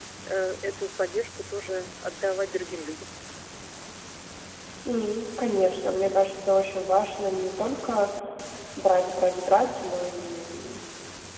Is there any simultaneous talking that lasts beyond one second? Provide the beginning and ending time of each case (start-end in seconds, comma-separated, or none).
none